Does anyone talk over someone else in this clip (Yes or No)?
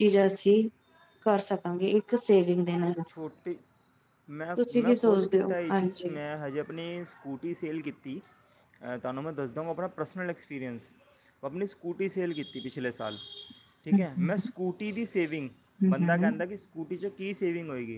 Yes